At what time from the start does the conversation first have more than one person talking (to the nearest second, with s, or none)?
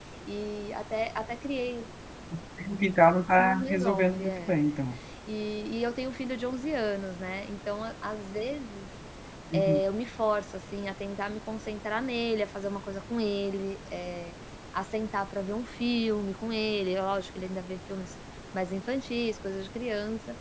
3 s